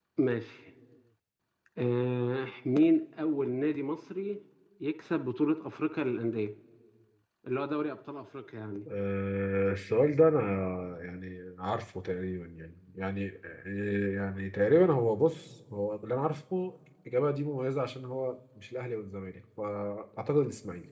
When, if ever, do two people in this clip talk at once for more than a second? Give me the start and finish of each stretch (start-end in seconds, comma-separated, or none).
none